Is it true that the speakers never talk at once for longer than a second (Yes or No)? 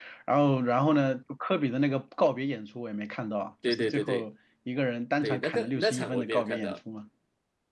No